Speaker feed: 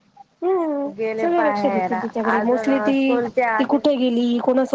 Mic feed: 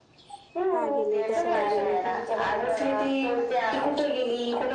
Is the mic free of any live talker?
No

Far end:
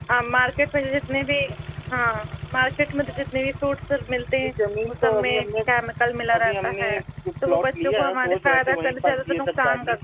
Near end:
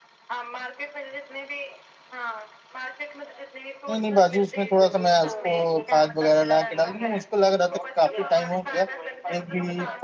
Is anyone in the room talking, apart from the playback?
Yes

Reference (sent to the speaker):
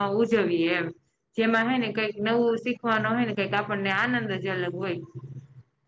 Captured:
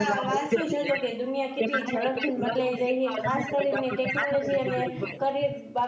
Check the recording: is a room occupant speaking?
Yes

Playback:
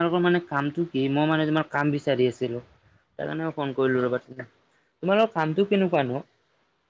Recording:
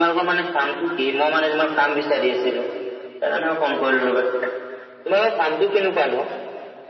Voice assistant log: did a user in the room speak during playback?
No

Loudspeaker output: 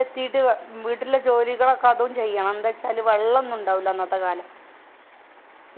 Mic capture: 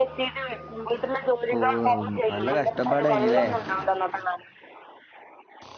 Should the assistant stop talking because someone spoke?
Yes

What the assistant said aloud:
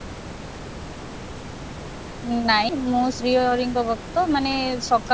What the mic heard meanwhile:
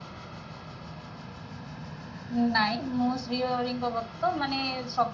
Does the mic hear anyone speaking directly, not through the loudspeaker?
No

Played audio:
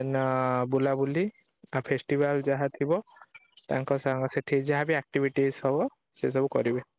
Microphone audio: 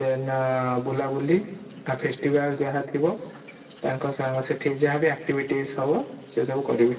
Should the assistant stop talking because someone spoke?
No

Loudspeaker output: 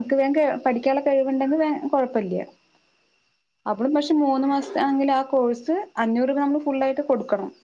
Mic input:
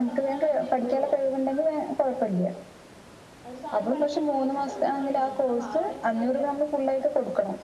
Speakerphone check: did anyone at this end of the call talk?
Yes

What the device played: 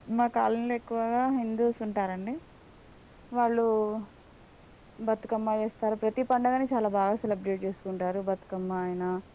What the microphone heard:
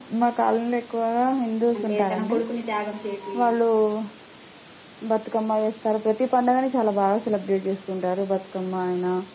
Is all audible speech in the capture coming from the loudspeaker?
No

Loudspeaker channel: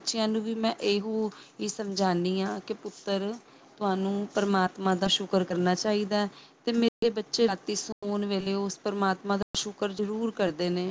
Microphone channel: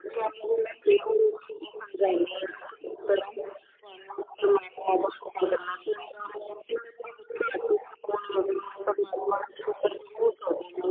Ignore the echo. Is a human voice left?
No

